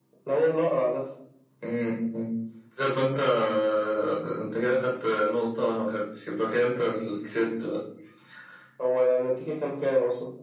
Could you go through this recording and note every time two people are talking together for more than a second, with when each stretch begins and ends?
none

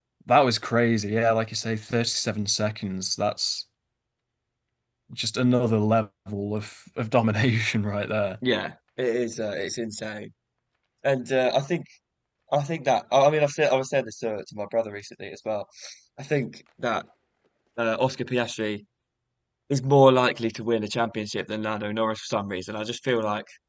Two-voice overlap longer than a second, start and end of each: none

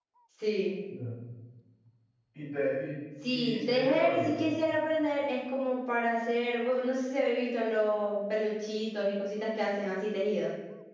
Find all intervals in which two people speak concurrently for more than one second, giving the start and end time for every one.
3.3-4.6

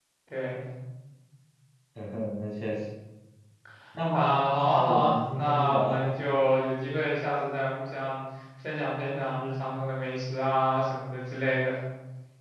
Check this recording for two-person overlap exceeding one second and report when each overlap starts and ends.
4.1-6.1

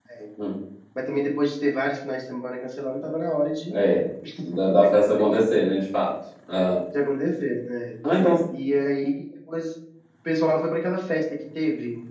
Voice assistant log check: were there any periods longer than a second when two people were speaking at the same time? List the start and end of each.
none

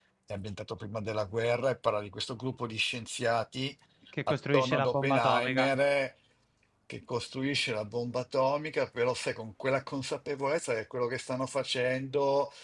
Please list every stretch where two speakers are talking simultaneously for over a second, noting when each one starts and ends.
4.3-5.7

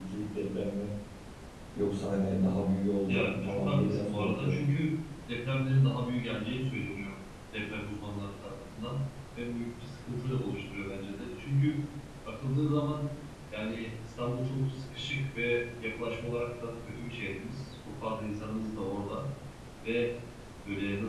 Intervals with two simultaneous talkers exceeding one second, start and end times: 3.1-4.6

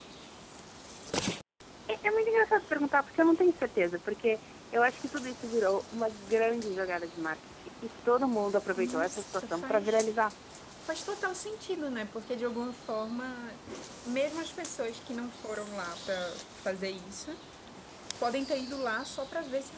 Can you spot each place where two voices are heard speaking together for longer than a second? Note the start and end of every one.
8.8-10.0

